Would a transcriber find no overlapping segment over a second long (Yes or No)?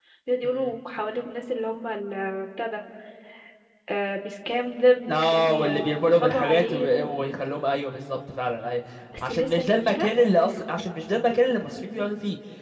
No